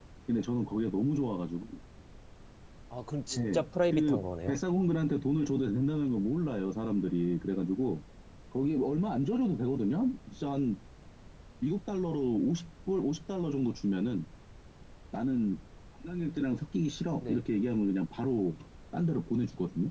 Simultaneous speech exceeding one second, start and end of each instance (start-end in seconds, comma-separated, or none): 3.3-4.6